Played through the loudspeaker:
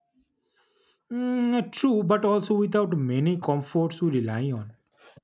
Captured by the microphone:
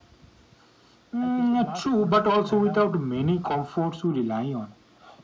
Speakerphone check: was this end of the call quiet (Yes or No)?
No